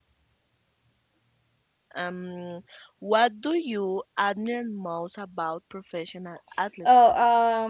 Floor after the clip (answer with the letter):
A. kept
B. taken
B